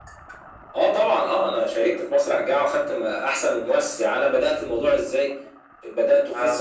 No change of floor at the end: Yes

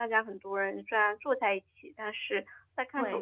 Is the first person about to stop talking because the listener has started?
Yes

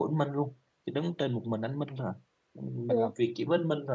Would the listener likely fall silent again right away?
Yes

